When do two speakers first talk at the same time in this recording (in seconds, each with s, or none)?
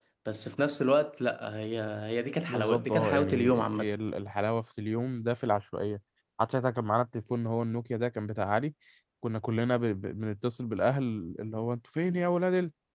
2.5 s